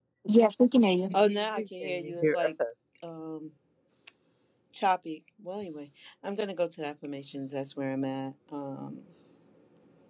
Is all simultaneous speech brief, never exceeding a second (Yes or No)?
No